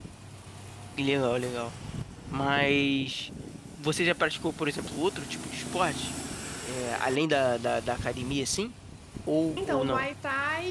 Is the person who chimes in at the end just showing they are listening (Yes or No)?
No